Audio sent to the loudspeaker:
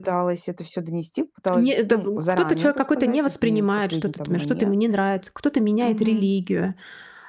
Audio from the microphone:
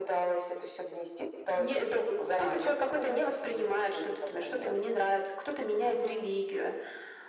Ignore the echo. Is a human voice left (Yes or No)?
No